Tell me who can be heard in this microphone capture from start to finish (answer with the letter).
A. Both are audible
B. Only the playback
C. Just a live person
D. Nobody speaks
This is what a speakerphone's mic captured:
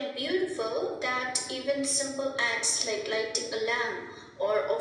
B